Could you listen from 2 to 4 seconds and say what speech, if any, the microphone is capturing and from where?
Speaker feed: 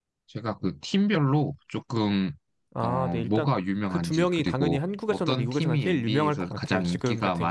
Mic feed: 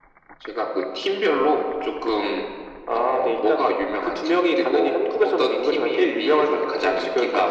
echo only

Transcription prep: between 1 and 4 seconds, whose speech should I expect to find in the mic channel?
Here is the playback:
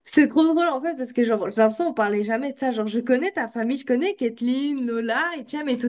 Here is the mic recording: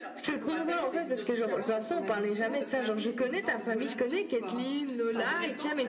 both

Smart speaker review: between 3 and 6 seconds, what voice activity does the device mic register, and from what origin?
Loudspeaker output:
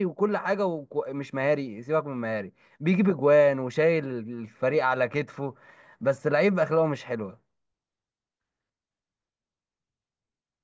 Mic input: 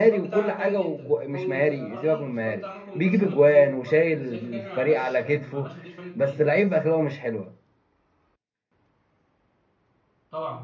both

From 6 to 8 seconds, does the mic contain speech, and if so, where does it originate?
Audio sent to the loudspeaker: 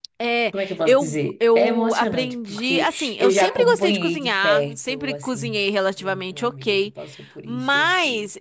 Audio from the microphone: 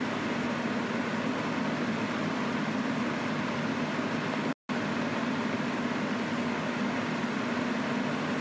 neither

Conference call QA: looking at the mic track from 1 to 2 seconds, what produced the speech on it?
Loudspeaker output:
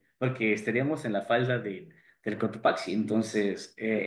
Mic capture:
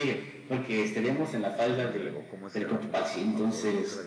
both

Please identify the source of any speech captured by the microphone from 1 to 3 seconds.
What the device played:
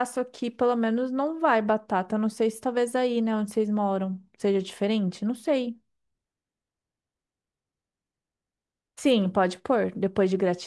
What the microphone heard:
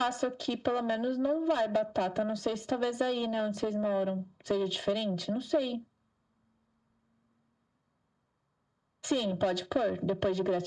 echo only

